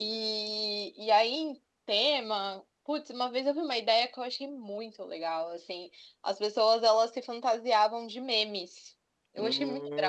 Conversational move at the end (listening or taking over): taking over